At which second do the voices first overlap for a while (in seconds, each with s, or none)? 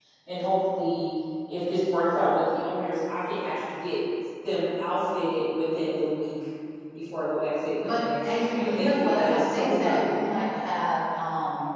7.8 s